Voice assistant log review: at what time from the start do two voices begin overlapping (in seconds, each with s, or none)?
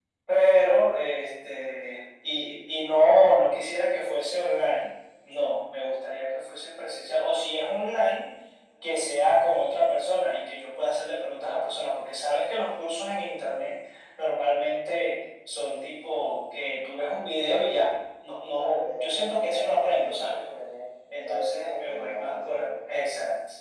18.5 s